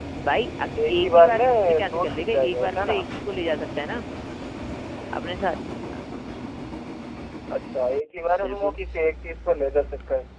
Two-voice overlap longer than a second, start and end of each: 0.9-3.0

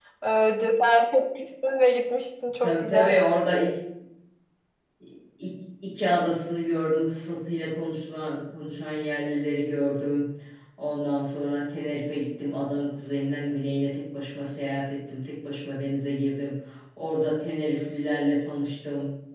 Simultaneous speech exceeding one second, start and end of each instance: none

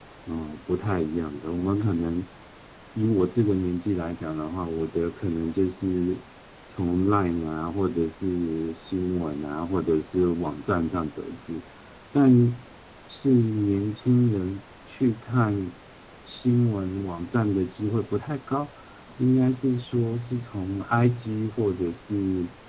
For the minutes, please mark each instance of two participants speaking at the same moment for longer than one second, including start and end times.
none

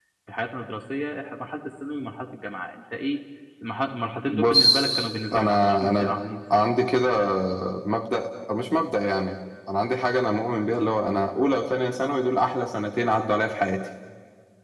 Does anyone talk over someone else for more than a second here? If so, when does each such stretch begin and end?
4.3-6.1

